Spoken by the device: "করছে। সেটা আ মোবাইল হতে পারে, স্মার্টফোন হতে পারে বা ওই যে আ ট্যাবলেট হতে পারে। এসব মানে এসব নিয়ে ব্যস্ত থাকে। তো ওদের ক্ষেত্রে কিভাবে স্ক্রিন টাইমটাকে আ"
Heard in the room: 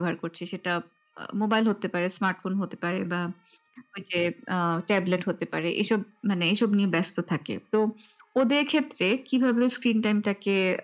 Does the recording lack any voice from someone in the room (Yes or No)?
Yes